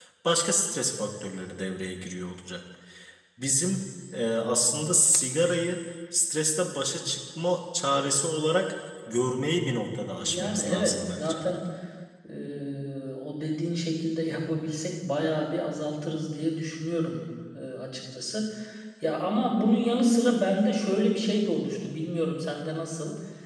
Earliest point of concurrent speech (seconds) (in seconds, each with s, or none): 10.2 s